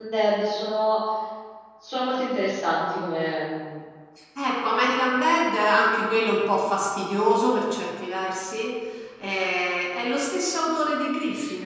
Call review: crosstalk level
none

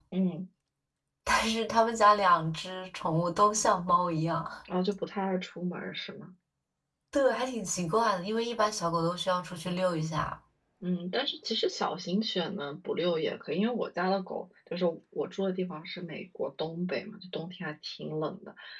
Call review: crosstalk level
none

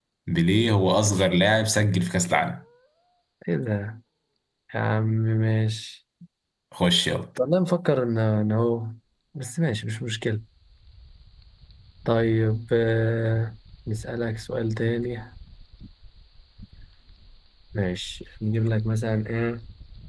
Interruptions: none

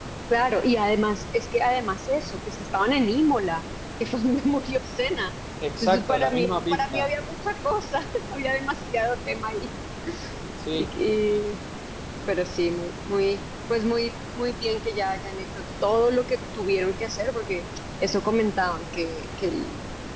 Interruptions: present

